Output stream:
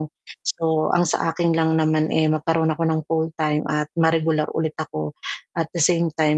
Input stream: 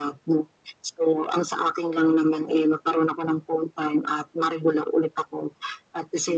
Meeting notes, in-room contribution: none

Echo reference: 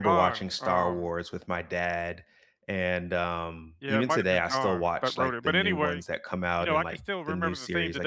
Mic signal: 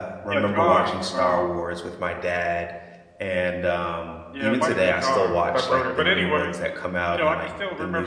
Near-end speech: none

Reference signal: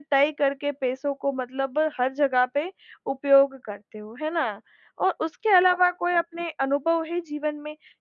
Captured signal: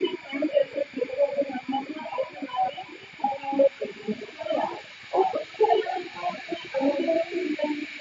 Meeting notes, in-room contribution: none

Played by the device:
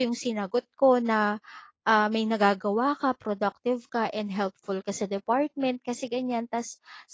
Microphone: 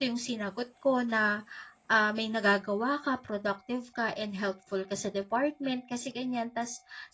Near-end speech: none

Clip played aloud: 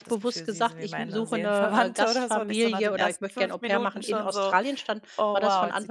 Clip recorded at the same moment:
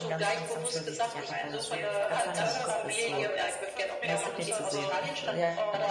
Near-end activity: present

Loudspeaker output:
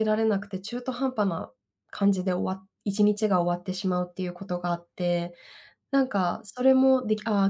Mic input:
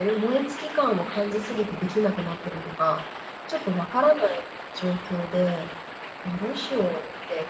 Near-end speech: present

